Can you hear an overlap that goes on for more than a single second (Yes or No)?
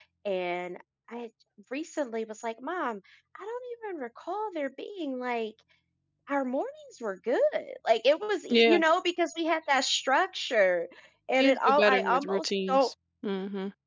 Yes